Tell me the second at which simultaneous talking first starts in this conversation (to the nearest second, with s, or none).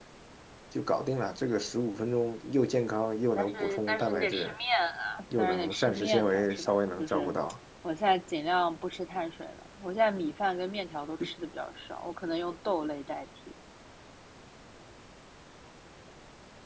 3 s